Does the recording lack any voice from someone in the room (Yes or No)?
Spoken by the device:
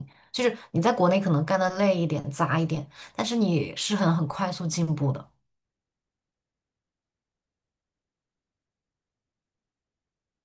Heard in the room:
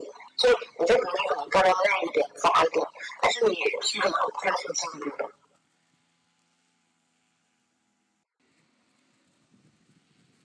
Yes